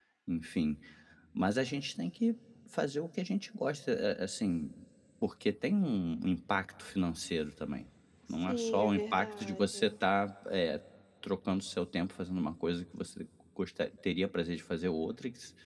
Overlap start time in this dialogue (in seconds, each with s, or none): 8.5 s